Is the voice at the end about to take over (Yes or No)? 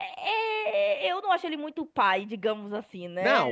Yes